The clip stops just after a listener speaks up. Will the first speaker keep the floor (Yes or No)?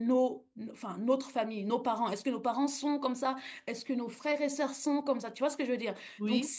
Yes